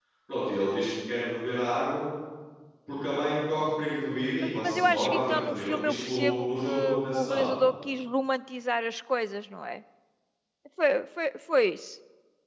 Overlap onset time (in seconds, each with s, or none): 4.4 s